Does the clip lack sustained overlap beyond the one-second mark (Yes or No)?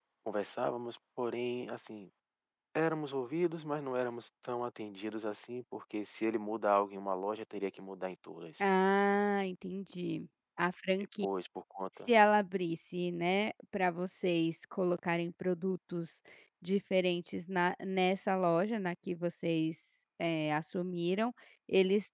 Yes